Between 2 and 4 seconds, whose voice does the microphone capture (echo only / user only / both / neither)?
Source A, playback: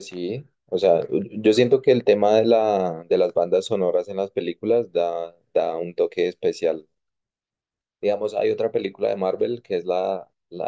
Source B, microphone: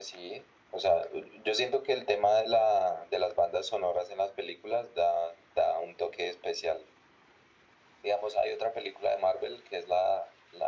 echo only